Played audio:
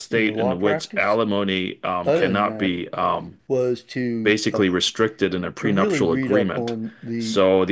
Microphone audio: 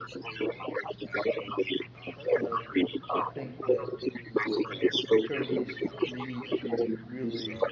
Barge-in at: 2.3 s

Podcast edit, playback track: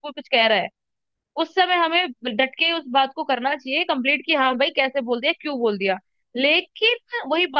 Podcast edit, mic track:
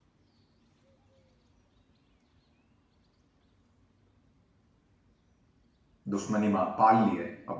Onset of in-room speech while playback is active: 6.1 s

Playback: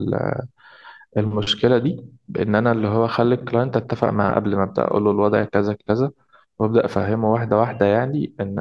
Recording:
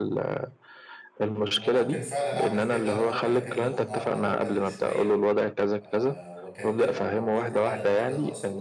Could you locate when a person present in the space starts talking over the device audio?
1.6 s

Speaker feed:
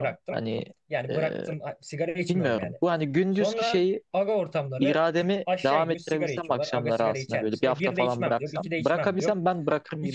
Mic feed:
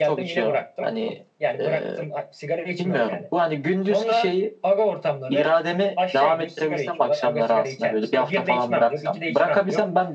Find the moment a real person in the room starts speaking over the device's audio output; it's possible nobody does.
none

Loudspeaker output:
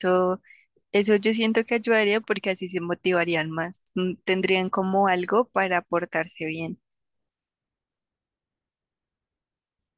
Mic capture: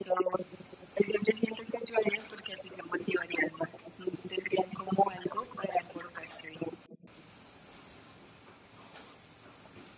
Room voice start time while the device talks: none

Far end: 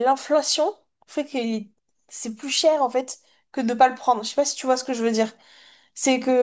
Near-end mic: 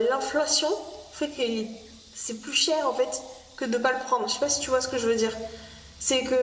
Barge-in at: none

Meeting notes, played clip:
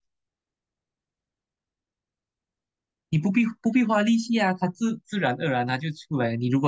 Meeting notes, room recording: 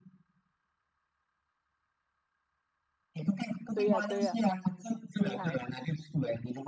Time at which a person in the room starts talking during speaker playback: 3.7 s

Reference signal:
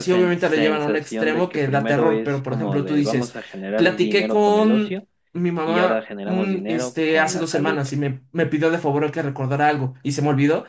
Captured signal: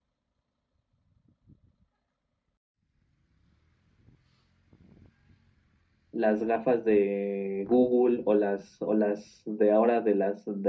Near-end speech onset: 6.1 s

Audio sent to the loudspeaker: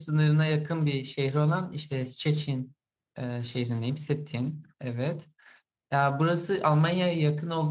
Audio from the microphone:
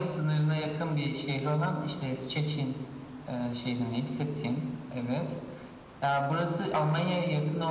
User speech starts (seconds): none

